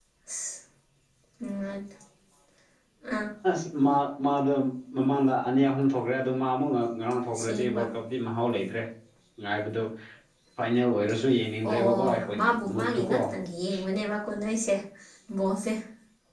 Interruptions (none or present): present